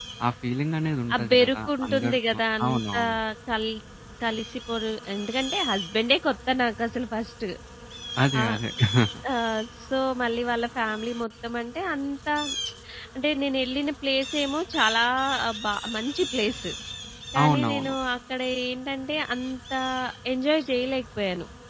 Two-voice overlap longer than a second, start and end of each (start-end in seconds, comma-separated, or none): 1.1-3.0